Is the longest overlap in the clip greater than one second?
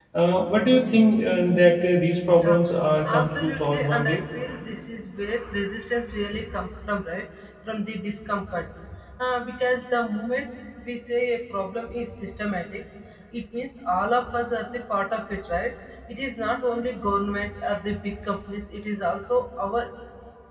Yes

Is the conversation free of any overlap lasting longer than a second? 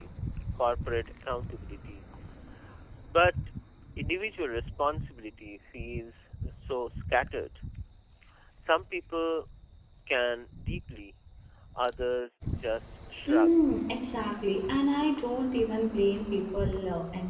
Yes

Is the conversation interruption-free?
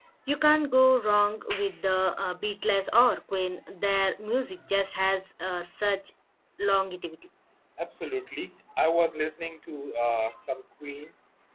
Yes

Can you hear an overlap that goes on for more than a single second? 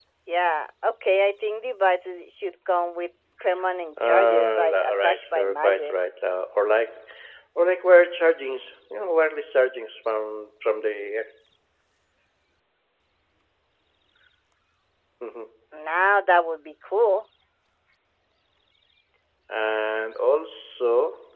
Yes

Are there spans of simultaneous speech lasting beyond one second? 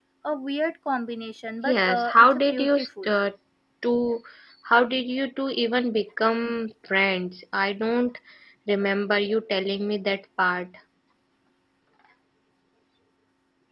Yes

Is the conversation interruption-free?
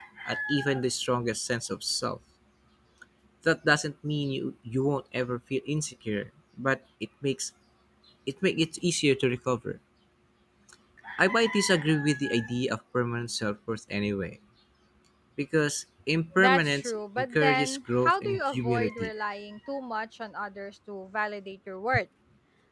No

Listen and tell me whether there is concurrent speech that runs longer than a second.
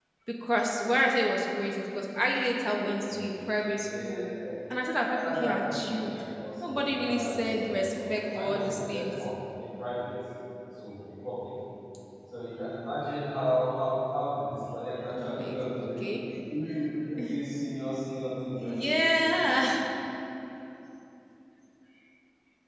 Yes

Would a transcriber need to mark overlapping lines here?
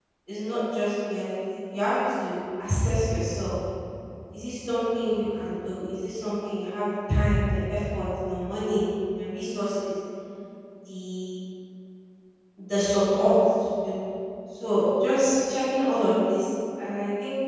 No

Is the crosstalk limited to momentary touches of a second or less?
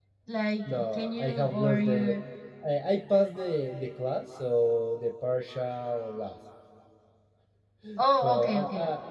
No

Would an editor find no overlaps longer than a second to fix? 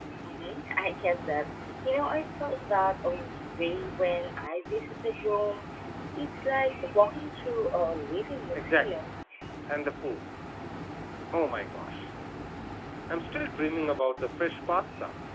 Yes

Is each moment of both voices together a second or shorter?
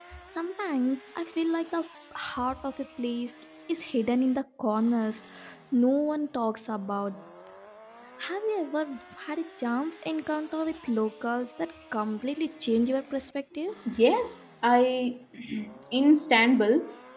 Yes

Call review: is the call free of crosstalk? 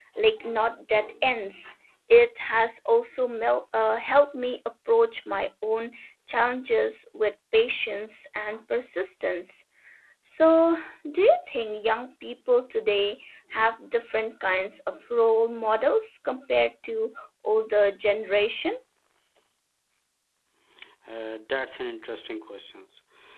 Yes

